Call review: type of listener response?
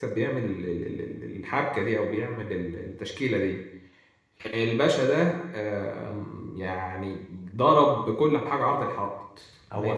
taking over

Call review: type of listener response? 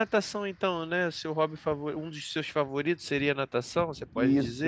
taking over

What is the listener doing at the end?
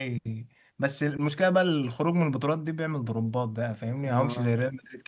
listening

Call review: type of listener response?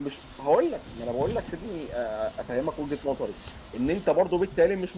listening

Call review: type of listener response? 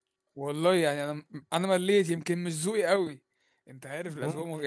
listening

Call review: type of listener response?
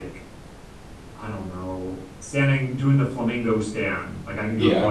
listening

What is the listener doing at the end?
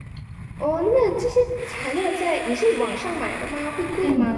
taking over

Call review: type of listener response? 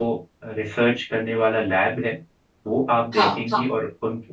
listening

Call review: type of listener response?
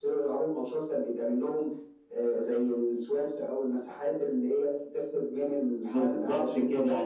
taking over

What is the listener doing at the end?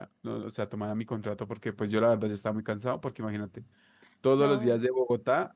listening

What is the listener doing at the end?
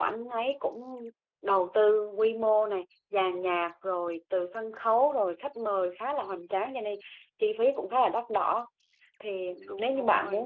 listening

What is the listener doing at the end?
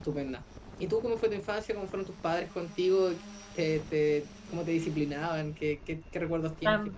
taking over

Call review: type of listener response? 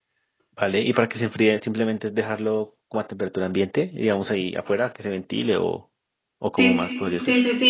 taking over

